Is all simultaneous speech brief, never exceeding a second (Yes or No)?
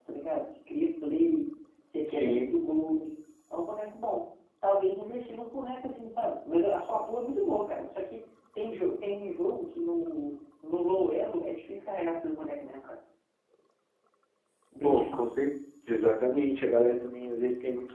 Yes